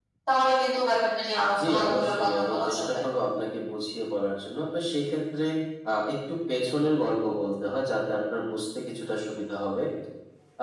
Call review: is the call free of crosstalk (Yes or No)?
No